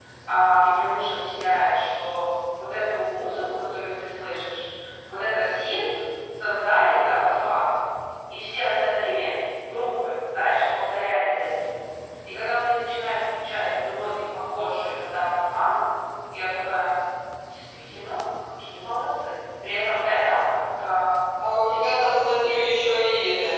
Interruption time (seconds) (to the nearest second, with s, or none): none